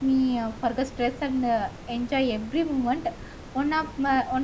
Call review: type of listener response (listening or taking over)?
listening